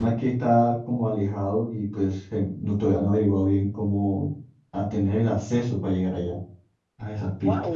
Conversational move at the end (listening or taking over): taking over